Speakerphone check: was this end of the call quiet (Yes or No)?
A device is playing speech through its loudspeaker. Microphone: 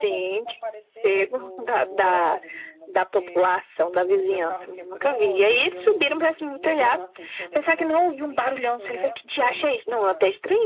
No